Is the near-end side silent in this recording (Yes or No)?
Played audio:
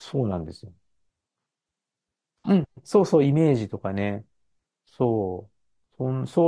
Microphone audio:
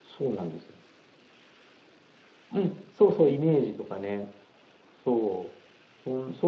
Yes